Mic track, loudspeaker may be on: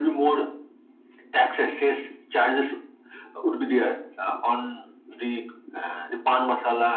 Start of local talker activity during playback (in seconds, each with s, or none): none